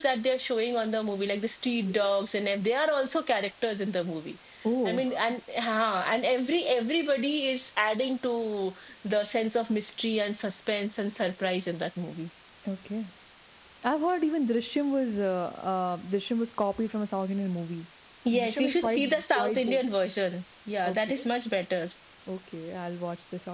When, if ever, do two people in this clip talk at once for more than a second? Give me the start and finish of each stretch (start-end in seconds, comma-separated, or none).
18.3-19.8